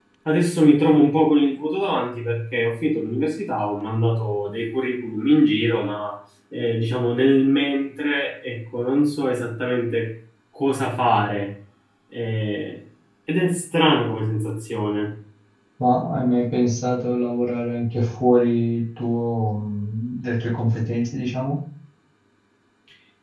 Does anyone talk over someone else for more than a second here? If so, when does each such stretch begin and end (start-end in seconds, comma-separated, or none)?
none